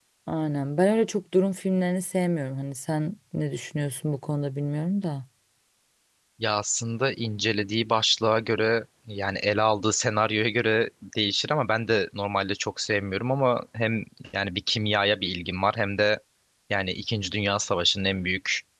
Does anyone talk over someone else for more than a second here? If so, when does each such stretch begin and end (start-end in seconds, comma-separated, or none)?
none